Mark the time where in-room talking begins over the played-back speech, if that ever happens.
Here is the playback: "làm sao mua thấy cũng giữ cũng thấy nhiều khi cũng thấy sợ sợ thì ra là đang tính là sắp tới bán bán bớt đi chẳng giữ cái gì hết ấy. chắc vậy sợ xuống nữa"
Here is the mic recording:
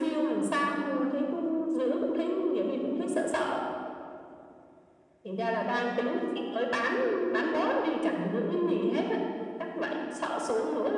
none

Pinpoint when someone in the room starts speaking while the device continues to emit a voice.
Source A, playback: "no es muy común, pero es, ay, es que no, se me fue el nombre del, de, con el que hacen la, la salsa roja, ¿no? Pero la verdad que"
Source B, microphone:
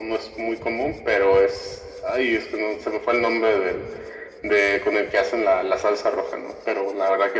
none

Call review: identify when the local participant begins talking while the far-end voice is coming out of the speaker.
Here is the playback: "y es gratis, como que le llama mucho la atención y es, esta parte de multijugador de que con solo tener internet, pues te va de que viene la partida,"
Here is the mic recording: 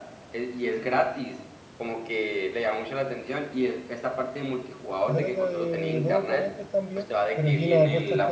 5.0 s

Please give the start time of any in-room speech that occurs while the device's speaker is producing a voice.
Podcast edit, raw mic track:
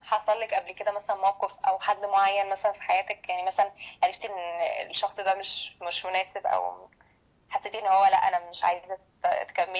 none

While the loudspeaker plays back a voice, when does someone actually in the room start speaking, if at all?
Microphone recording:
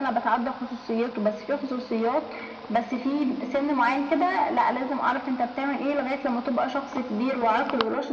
none

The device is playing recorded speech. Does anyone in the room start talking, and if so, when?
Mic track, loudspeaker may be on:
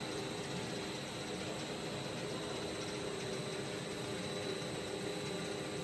none

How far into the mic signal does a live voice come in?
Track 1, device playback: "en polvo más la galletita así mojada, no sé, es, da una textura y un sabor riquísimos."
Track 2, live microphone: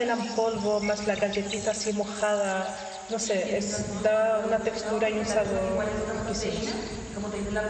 3.0 s

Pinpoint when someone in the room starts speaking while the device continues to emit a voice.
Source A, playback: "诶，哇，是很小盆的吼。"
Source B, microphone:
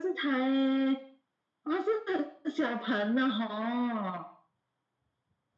none

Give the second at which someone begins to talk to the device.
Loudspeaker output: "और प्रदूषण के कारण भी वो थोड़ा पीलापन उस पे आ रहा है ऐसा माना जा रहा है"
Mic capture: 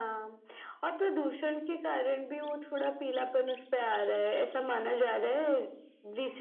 none

